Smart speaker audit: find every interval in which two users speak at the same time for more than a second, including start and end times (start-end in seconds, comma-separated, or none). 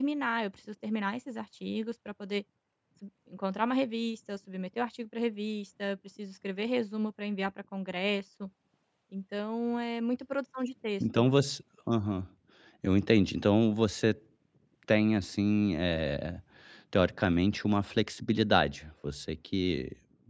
none